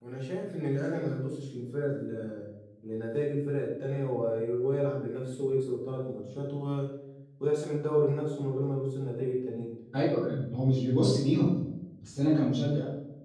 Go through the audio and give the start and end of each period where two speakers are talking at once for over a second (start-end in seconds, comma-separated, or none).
none